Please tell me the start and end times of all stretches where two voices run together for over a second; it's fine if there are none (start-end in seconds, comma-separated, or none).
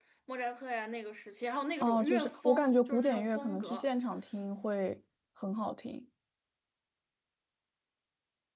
1.8-3.9